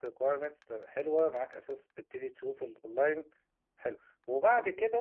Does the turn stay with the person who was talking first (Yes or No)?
Yes